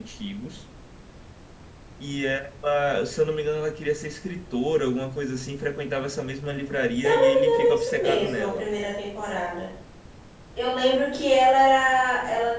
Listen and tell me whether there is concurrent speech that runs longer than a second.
Yes, from 7.0 s

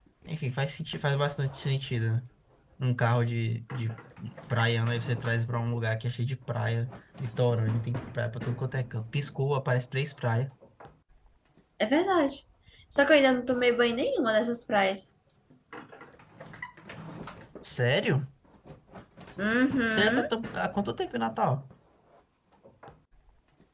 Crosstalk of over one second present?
No

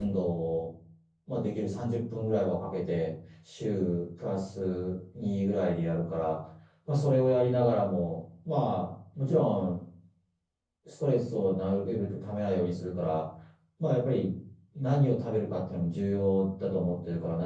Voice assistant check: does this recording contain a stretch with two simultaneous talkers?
No

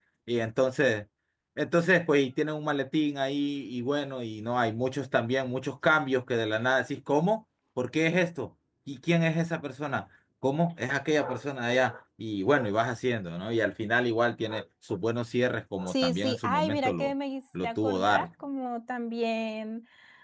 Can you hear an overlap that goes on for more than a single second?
Yes, from 15.9 s

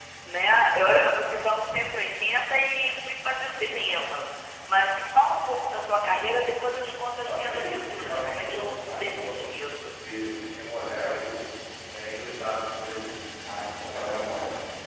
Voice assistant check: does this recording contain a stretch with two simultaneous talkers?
Yes, from 7.3 s

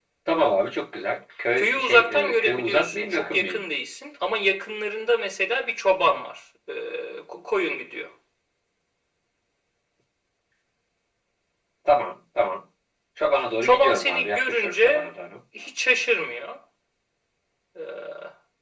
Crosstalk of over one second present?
Yes, from 1.6 s

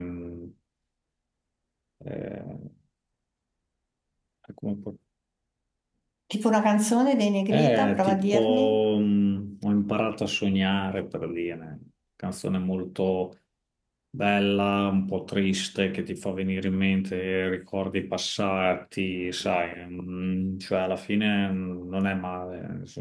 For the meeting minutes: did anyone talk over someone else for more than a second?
Yes, from 7.5 s

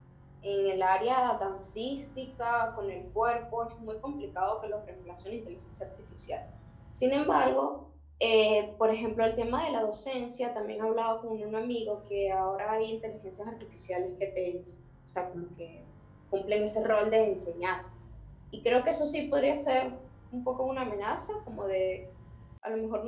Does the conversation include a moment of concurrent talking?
No

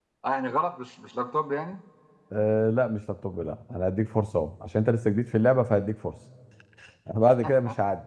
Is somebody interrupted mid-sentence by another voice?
No

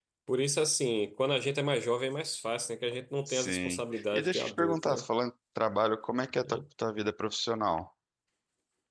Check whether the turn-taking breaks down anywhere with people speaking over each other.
Yes, from 3.3 s

